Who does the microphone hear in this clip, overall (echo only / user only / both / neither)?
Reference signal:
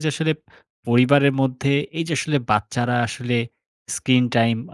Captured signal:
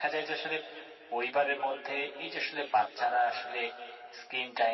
echo only